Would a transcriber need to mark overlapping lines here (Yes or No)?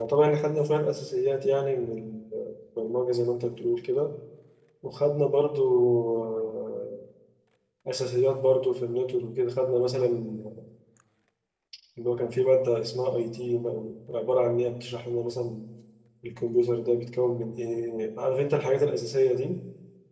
No